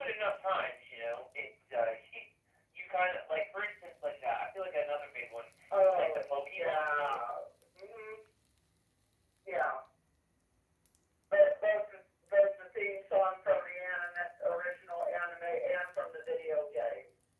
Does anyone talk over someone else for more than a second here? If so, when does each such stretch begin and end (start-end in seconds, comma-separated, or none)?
5.8-7.3